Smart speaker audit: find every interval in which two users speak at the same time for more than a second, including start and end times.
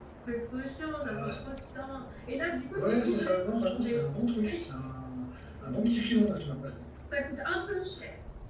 2.7-4.0

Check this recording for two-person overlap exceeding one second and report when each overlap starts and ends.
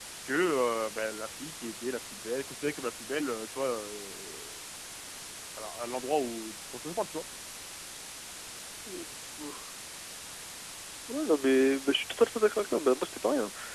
none

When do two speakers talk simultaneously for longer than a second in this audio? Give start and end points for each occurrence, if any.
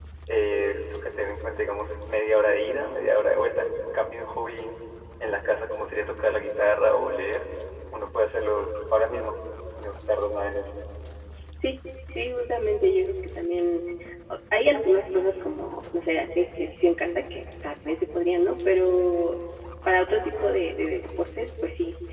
none

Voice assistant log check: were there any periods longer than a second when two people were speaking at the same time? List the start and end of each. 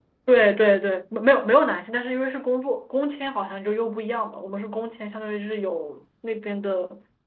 none

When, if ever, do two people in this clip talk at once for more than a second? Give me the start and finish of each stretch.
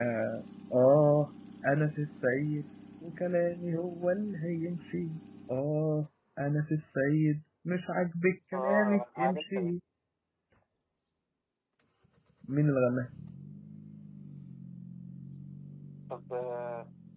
8.5-9.8

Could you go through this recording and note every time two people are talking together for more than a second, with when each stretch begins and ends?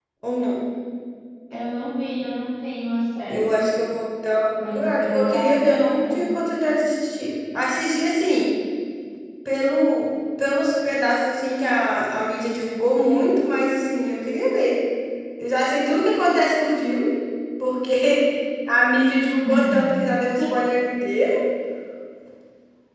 4.6-6.3

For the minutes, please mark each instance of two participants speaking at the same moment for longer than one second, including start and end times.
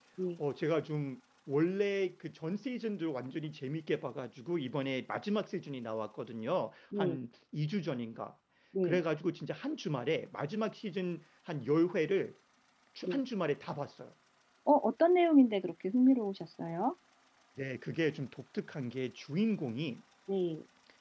none

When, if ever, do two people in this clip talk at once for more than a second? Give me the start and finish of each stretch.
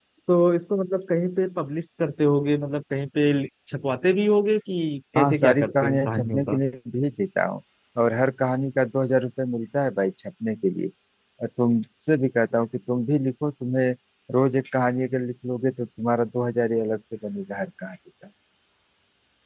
5.2-6.6

